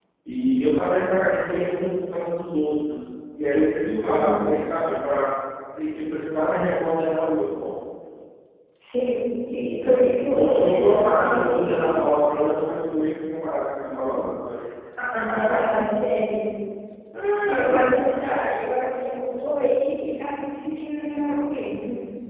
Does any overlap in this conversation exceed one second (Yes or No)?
Yes